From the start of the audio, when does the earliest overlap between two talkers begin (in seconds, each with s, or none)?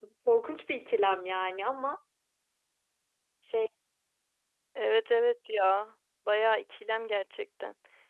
none